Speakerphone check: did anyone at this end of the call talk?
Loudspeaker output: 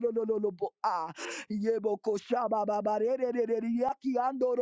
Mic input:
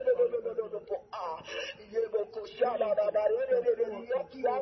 Yes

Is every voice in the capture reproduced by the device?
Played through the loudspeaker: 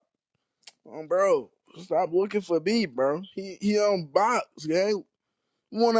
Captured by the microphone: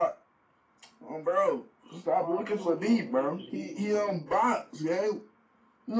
No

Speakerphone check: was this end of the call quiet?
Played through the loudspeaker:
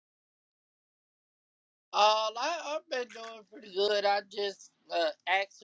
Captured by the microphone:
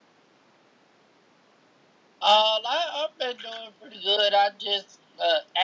Yes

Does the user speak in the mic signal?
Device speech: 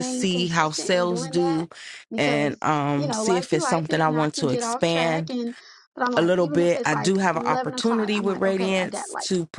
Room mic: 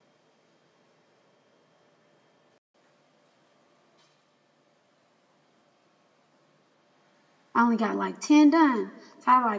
Yes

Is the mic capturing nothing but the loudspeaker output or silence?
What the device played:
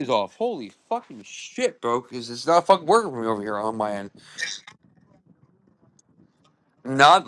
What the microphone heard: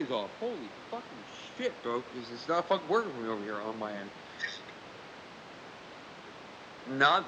Yes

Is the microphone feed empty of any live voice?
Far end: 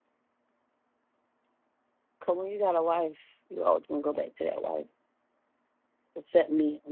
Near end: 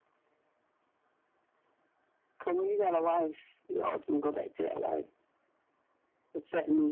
Yes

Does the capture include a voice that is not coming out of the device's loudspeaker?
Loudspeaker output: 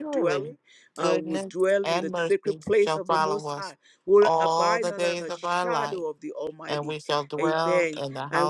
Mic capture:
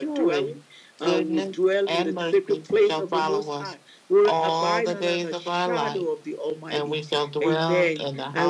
No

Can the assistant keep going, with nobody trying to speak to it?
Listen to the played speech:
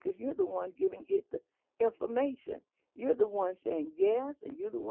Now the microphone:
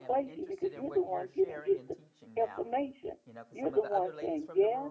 No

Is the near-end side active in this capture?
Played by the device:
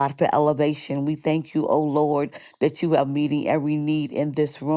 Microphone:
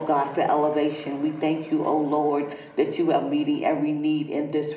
No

